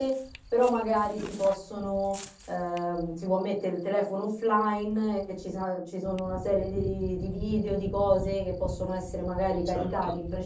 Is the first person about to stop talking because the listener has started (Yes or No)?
No